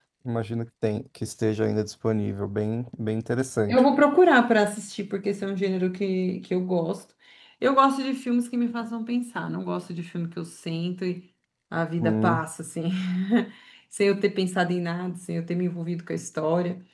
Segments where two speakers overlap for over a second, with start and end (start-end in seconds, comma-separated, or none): none